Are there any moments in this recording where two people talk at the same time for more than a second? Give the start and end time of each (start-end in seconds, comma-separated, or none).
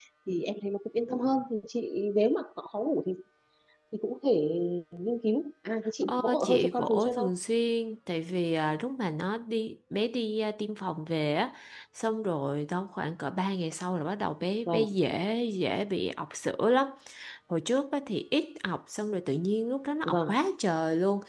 6.0-7.3